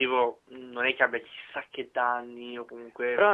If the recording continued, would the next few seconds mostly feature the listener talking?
Yes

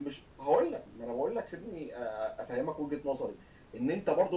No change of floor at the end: Yes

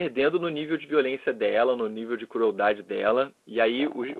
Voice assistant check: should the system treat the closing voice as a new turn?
No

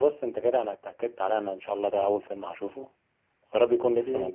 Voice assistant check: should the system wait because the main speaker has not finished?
Yes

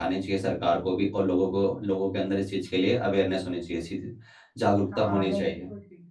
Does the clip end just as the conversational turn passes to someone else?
Yes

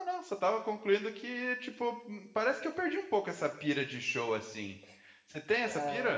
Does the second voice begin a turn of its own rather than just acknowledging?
Yes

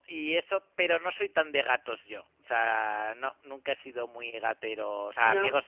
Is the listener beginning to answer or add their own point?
No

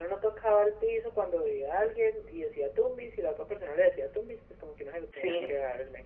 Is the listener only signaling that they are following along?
Yes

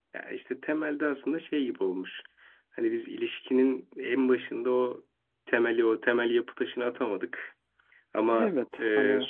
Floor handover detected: No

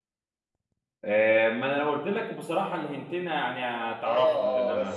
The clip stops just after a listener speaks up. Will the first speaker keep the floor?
No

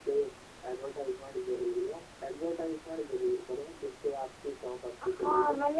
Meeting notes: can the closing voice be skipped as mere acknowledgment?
No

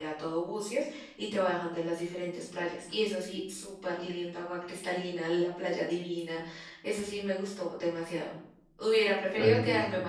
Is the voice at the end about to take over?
No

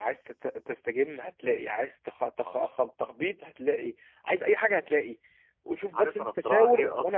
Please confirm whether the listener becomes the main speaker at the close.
Yes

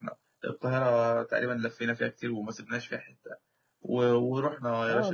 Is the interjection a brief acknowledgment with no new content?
No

